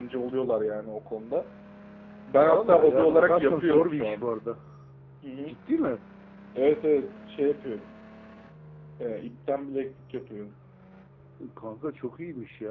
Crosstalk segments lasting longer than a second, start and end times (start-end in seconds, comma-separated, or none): 2.4-4.2